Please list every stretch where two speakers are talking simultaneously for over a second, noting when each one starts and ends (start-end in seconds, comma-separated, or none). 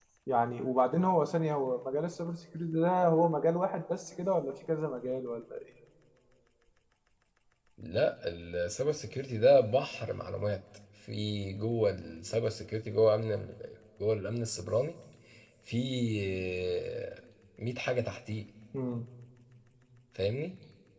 none